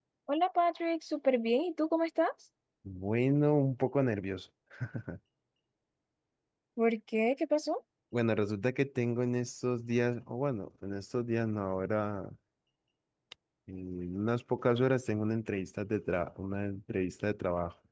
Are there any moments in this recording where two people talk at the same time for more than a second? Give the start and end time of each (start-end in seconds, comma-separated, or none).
none